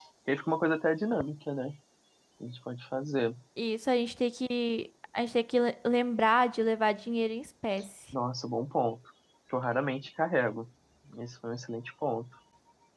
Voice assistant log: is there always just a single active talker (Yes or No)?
Yes